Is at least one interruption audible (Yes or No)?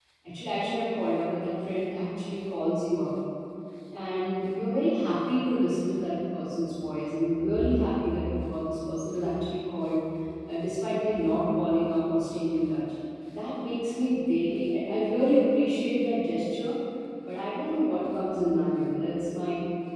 No